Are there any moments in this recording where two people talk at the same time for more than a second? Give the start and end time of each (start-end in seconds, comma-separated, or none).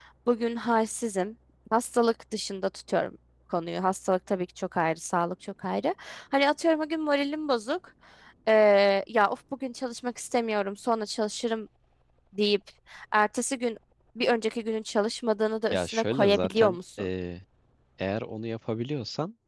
15.7-17.1